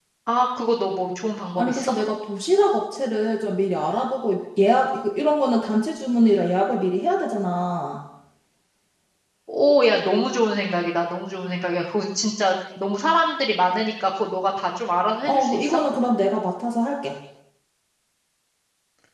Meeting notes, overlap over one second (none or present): none